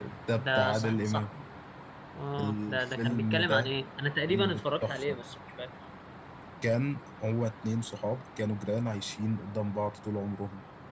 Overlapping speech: Yes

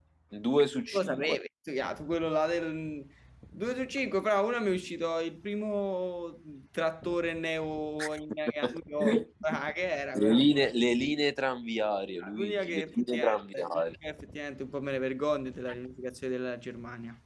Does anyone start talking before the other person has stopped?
Yes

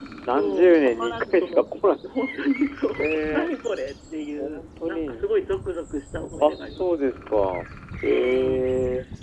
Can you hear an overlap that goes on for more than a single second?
Yes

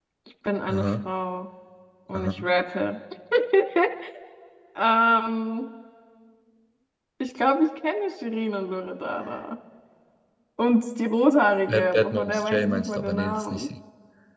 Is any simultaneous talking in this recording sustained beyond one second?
Yes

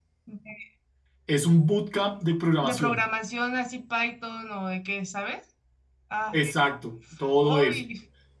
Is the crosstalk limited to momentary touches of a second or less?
Yes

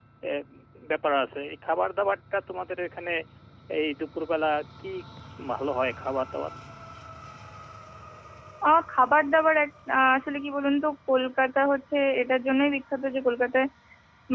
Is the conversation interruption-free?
Yes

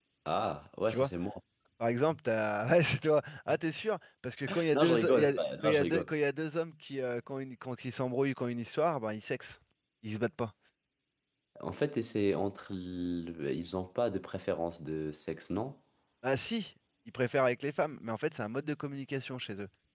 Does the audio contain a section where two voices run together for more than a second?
Yes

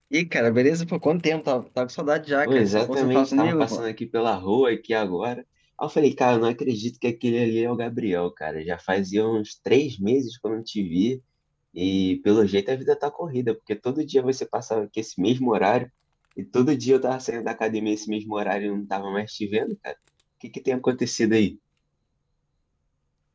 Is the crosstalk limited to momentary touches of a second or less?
No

